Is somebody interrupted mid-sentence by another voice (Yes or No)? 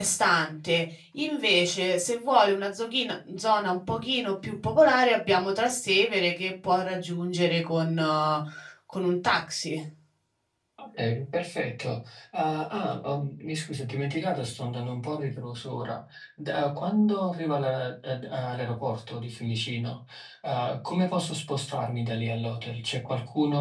No